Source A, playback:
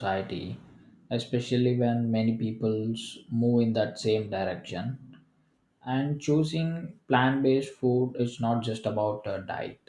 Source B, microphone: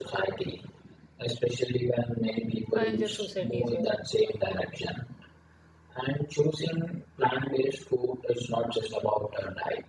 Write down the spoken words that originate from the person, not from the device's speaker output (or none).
A healthier society is a